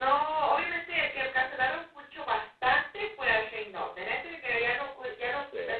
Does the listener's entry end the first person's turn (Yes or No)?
No